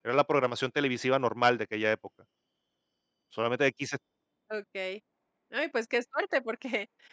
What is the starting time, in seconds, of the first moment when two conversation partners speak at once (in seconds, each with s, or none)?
none